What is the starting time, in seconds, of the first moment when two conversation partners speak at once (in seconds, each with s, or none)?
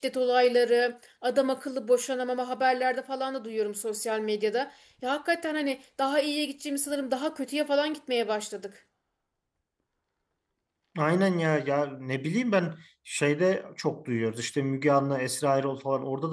none